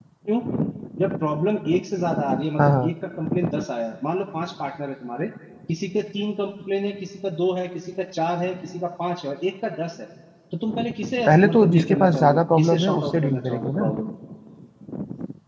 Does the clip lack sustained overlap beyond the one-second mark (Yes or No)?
No